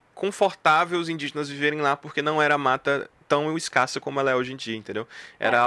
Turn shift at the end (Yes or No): No